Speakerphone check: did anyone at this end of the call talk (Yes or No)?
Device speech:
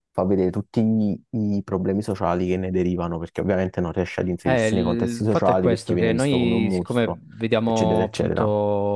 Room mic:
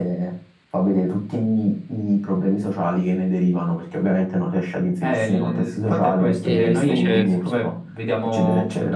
Yes